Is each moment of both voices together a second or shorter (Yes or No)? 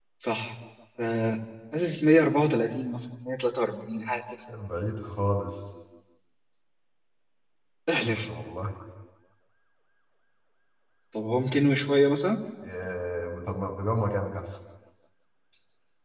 Yes